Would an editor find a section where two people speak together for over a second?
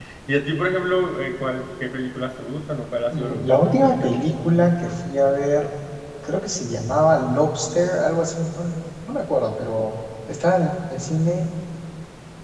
Yes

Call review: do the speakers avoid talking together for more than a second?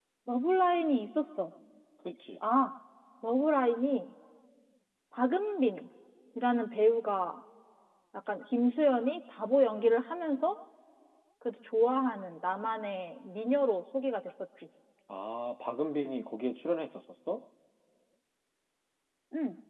Yes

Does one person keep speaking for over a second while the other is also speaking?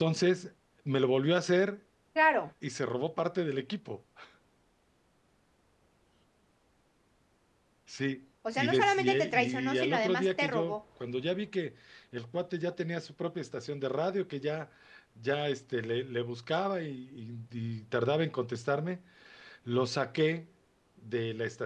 Yes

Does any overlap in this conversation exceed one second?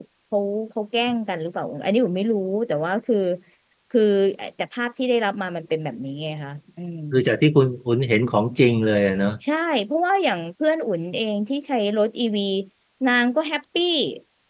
No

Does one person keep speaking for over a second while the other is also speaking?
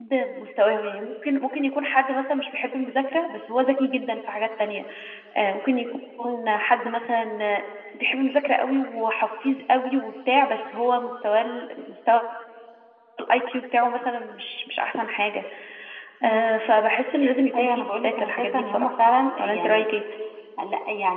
Yes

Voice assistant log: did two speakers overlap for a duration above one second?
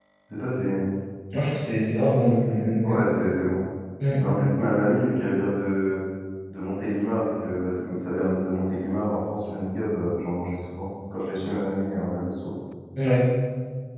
No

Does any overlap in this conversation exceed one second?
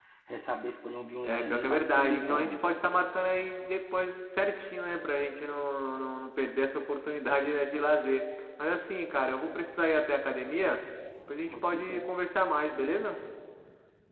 Yes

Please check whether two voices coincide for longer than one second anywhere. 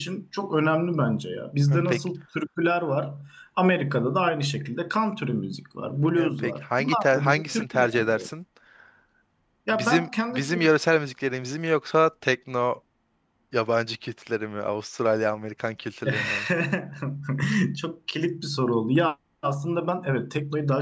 Yes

